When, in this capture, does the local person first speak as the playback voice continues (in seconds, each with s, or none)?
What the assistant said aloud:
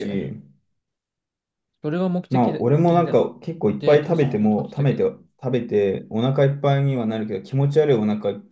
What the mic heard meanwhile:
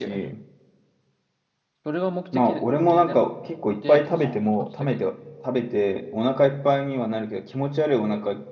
none